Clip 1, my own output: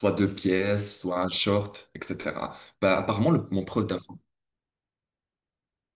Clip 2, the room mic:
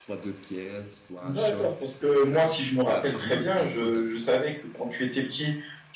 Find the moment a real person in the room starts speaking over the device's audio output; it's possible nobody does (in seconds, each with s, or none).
1.2 s